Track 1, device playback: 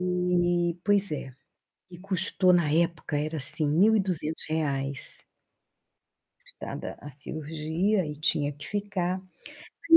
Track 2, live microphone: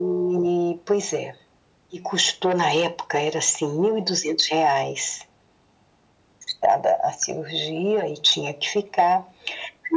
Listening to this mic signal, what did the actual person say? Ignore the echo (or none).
none